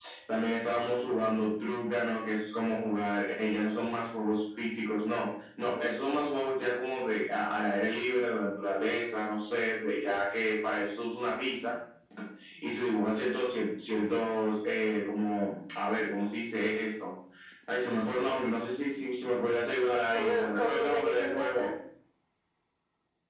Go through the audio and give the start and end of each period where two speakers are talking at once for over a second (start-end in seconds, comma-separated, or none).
20.1-21.7